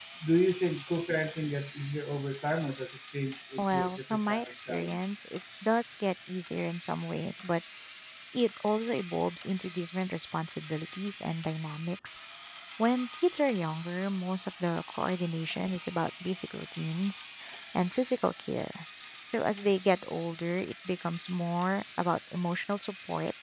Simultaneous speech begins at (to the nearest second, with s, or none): 4 s